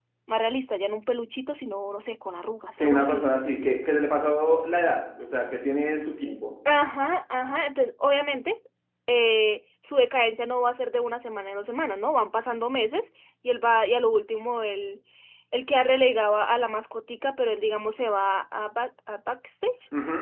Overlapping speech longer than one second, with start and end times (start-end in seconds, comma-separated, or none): none